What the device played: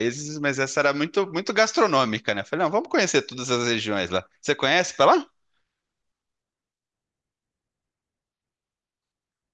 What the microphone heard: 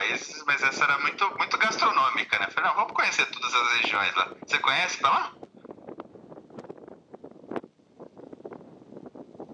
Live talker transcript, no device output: none

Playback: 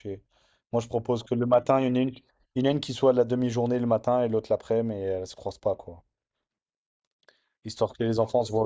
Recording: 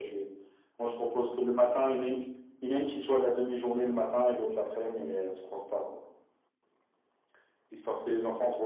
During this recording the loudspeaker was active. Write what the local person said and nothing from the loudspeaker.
none

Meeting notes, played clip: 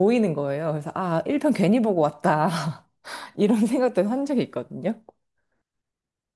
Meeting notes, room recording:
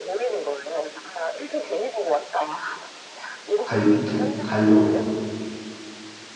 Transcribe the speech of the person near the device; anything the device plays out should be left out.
갈, 이제 가려고요.

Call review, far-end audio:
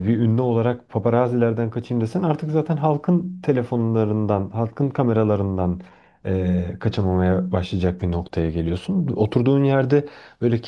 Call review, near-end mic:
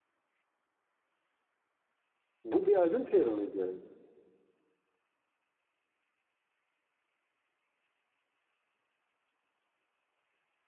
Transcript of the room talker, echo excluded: Bu bir albüm PR'ı mıydı?

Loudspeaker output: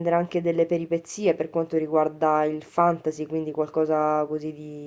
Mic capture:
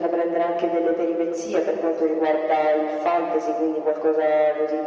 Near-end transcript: none

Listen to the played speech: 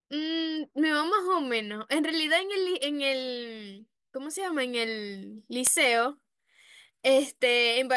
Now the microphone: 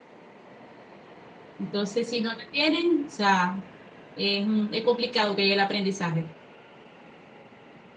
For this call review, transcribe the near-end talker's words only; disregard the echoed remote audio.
Entonces, si no la tienen, o sea, es, mm, es complicado que haya el aprendizaje.

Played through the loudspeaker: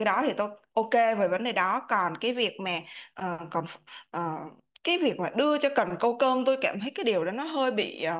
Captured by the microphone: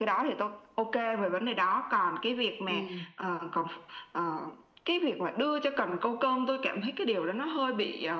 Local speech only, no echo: Ừ.

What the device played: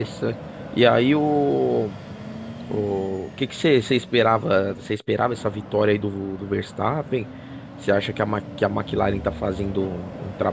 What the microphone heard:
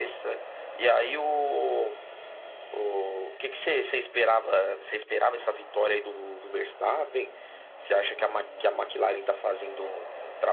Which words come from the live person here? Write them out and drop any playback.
none

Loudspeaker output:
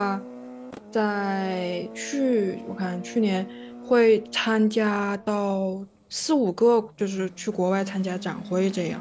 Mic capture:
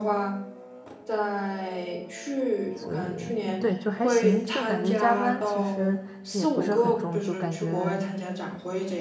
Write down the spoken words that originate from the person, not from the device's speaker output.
所以对，就还行，就感觉加班其实也不是很重，就感觉

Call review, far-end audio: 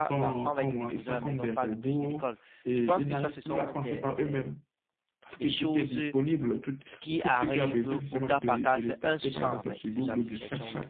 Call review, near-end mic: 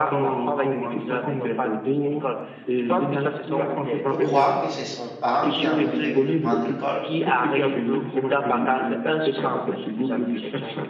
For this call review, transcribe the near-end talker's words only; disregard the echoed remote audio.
peut croire que c'est son parent qui a envoyé quelqu'un venir le prendre à l'école,

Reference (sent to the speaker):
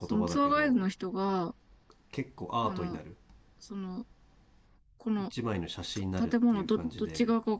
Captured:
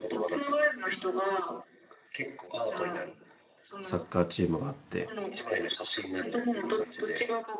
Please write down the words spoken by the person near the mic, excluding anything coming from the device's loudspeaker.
う、サッカーチームがあって、

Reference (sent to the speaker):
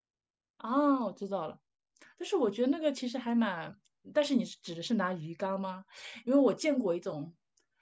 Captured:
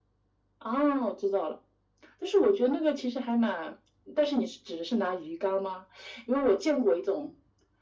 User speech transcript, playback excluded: none

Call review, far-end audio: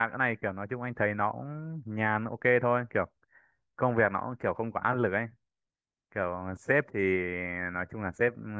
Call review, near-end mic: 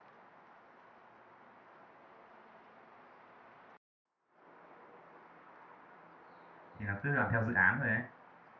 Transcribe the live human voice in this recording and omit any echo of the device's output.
thì nó cứ làm theo dự án thôi ấy

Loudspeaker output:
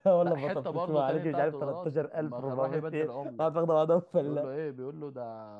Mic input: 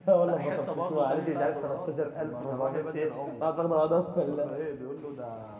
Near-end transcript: none

